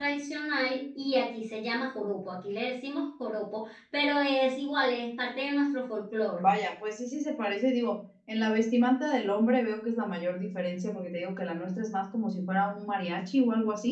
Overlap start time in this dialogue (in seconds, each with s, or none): none